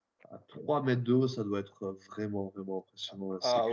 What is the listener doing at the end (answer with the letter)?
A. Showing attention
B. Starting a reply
B